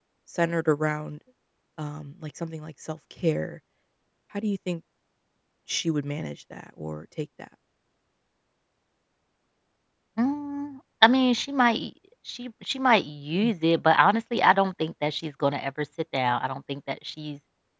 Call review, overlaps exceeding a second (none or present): none